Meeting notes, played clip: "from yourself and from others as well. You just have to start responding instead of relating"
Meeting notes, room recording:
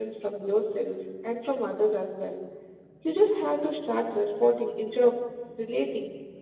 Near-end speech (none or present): none